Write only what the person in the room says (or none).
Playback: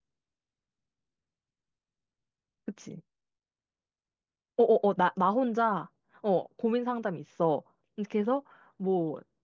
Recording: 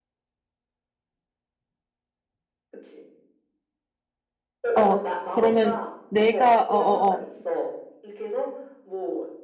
어, 그러면 내가, 어어어,